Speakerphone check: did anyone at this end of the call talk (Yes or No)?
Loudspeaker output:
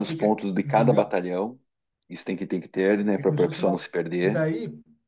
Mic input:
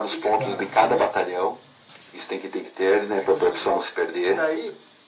Yes